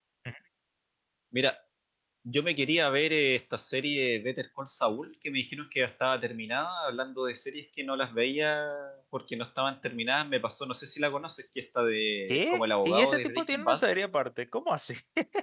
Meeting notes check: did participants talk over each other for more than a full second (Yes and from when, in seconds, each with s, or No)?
Yes, from 12.3 s